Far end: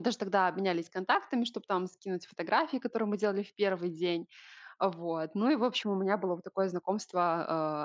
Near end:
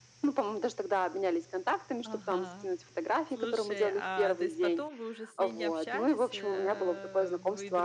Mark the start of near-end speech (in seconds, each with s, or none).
2.0 s